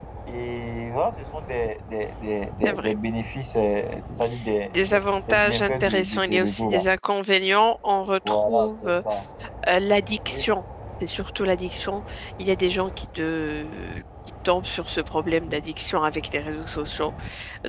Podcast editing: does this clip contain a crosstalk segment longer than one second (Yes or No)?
Yes